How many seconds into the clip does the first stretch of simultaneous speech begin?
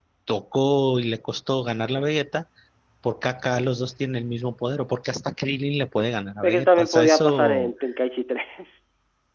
6.4 s

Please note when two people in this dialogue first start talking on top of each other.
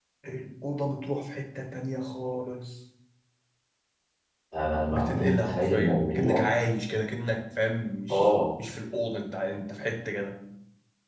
4.9 s

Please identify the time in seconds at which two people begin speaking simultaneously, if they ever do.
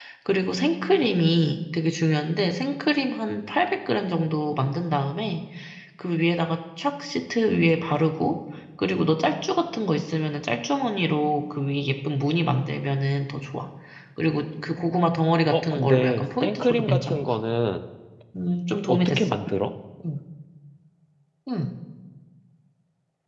15.5 s

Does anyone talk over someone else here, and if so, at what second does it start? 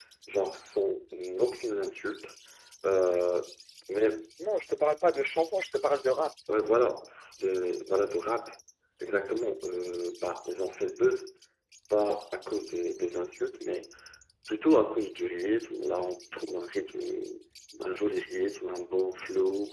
none

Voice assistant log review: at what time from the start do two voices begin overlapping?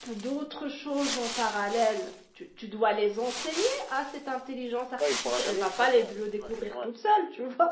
5.0 s

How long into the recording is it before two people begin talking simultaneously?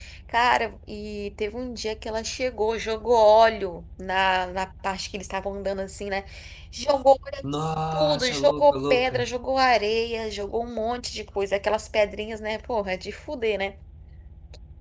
7.9 s

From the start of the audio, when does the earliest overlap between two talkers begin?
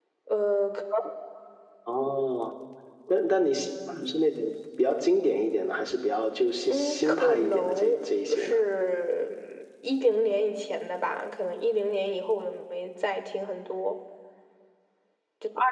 6.7 s

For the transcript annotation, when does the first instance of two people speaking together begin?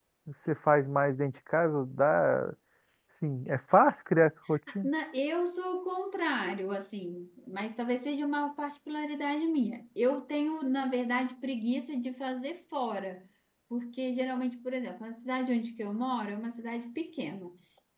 none

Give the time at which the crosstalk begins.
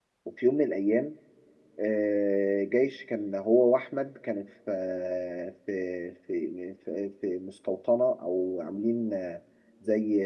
none

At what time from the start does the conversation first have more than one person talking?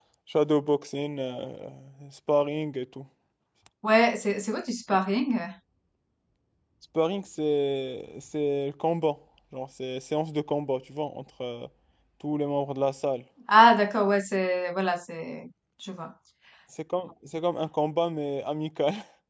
none

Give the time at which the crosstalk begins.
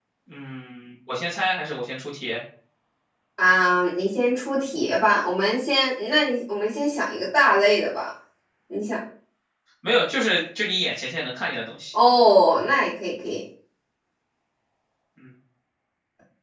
none

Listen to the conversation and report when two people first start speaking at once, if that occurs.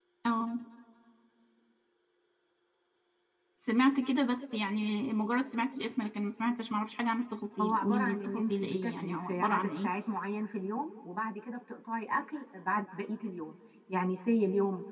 7.6 s

